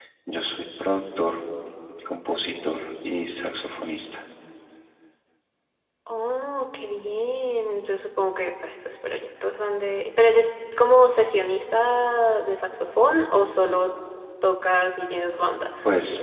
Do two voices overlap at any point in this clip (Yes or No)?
No